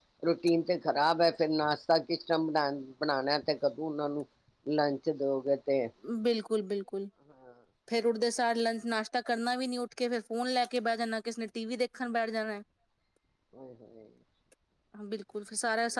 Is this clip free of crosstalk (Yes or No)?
Yes